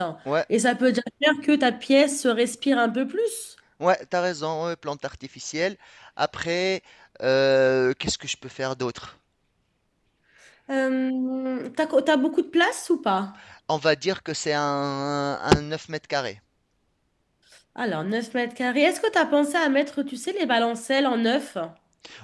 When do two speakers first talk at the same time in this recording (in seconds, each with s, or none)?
none